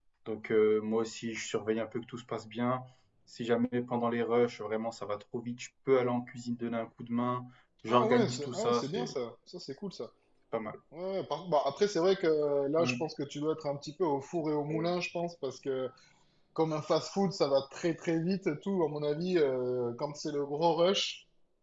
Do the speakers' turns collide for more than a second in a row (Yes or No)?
Yes